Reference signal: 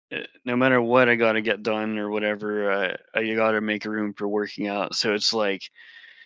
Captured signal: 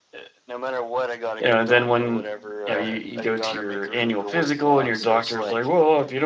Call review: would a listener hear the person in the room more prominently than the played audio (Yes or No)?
Yes